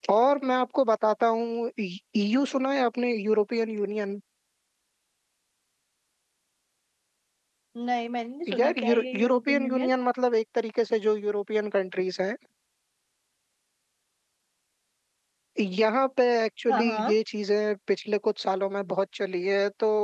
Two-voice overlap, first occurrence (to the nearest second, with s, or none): 9 s